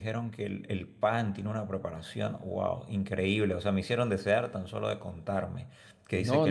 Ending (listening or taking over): taking over